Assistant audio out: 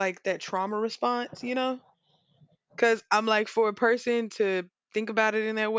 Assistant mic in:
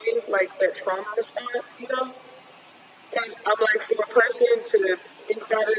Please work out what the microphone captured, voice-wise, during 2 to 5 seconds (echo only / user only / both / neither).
echo only